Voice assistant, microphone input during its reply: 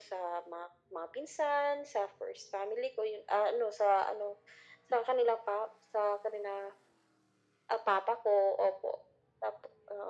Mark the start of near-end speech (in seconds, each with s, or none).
none